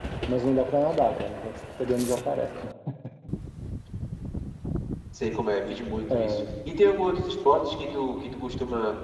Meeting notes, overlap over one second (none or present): none